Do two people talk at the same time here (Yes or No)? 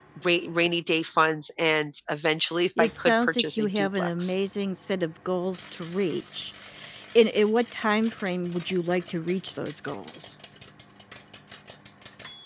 Yes